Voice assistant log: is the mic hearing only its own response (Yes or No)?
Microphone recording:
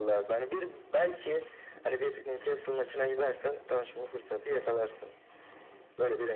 Yes